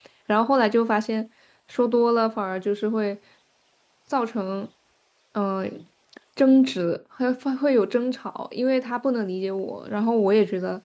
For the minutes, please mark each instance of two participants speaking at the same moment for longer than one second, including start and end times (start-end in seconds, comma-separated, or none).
none